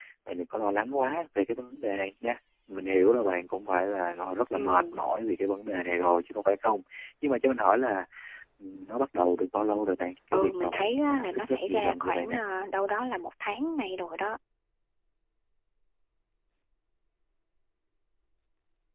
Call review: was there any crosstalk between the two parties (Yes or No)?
Yes